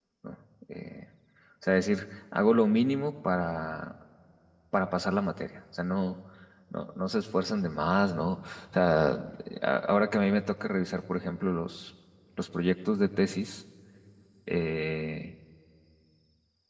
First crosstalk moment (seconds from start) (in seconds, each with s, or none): none